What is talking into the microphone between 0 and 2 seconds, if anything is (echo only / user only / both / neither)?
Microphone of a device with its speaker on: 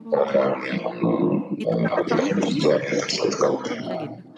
both